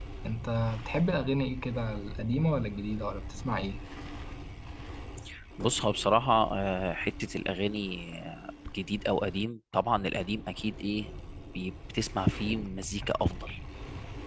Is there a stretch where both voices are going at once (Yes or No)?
No